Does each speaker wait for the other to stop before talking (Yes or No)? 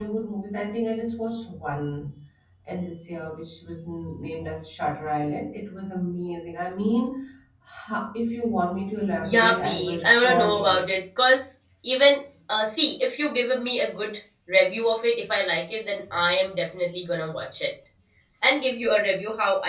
No